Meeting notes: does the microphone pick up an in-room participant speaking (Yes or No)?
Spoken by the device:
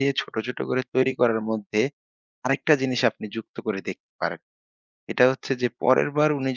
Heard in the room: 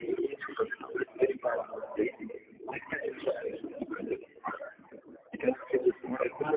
No